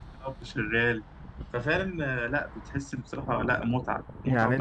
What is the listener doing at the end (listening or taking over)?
taking over